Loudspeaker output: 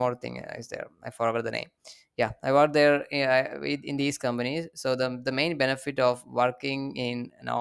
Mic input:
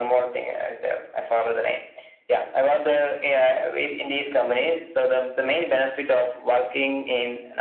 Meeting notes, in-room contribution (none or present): none